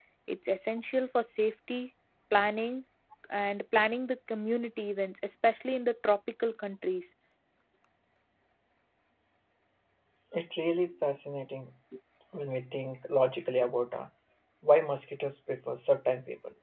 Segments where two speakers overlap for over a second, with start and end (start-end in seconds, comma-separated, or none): none